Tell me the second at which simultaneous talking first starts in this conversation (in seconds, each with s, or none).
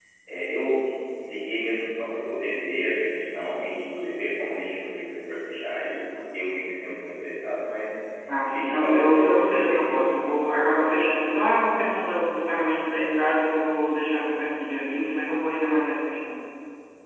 8.5 s